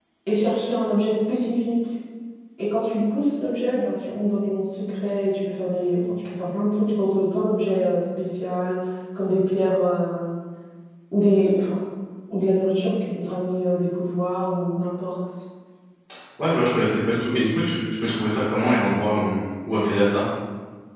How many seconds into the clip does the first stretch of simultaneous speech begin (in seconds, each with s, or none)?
none